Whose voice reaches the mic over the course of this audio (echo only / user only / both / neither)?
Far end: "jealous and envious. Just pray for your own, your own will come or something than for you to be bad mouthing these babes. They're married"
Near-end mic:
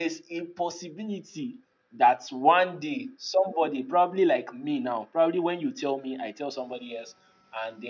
user only